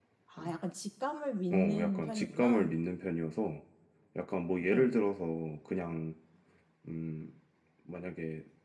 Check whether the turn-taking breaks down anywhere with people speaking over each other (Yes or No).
Yes